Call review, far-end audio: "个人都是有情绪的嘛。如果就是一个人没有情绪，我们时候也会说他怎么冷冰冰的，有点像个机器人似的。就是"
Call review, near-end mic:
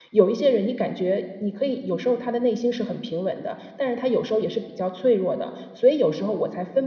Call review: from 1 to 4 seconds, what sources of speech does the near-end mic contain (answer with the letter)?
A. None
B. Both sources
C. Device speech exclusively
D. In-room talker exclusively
D